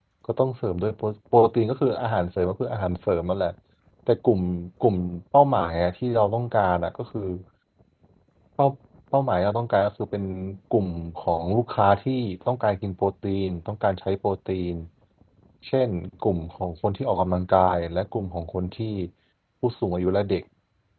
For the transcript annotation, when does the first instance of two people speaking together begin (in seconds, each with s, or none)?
none